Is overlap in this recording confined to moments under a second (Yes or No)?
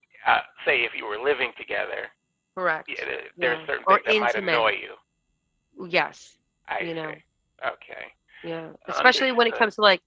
No